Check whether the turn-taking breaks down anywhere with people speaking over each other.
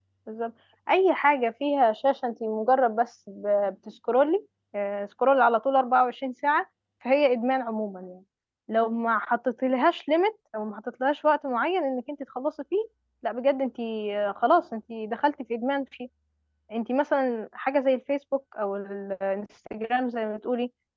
No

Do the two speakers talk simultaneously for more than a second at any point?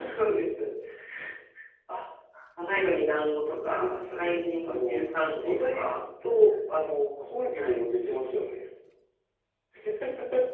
Yes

